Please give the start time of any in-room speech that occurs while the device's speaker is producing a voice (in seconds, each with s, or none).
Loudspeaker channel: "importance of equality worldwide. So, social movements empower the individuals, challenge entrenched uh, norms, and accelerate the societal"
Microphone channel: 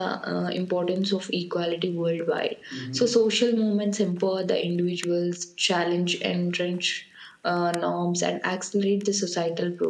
2.7 s